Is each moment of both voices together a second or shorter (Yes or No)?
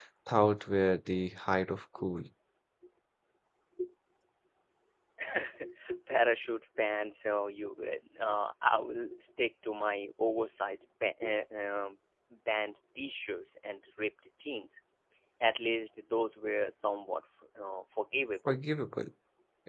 Yes